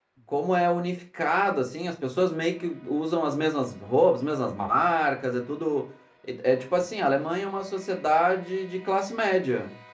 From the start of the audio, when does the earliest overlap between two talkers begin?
none

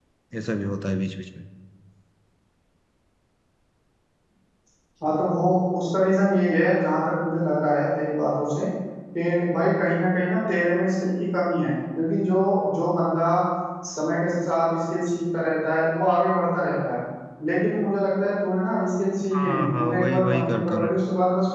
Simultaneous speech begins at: 19 s

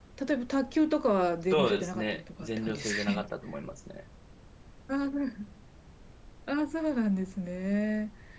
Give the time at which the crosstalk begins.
2 s

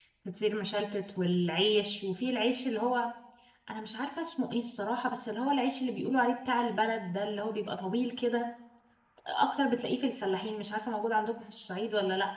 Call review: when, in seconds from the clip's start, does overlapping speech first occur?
none

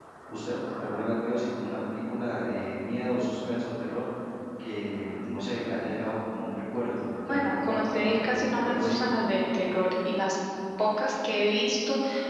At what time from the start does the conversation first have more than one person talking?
7 s

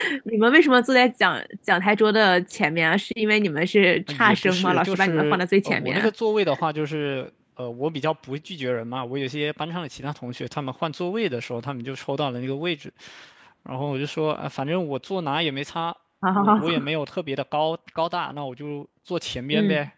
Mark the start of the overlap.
4 s

